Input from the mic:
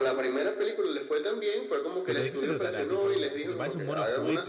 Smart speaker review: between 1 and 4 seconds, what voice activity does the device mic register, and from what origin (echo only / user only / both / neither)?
both